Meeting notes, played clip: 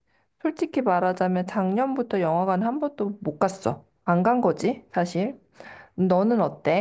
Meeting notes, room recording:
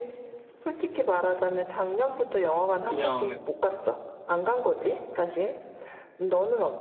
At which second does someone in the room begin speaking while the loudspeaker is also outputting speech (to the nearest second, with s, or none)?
3 s